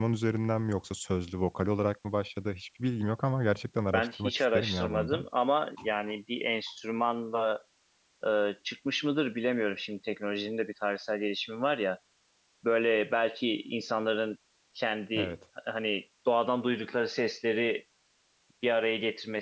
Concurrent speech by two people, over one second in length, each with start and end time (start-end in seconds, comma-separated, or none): 3.9-5.2